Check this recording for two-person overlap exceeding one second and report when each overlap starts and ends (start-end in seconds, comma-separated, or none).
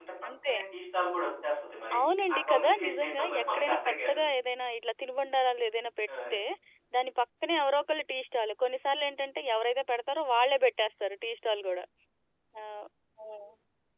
2.3-4.2